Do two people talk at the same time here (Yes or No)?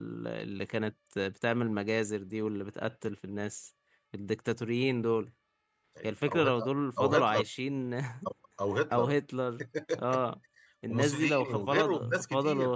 Yes